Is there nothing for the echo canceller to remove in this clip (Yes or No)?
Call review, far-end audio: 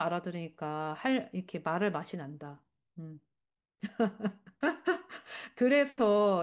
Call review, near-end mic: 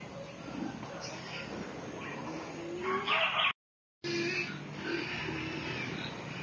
Yes